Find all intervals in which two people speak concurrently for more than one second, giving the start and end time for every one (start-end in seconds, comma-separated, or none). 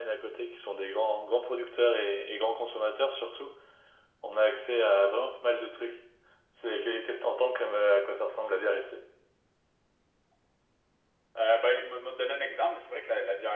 none